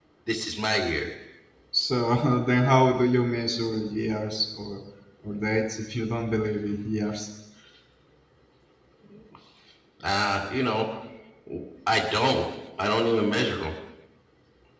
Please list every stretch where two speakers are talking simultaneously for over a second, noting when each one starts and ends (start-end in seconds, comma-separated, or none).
none